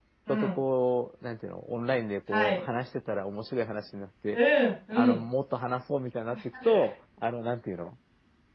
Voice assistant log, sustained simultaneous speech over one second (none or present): none